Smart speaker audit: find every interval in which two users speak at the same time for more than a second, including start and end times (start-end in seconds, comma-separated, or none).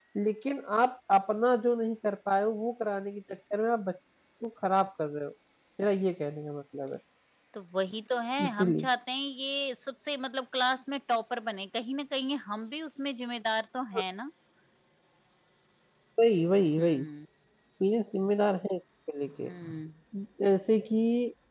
none